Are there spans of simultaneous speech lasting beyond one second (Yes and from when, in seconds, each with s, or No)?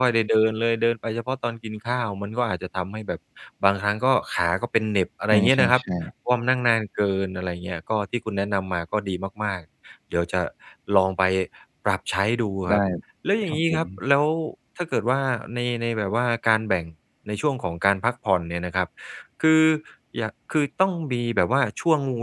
No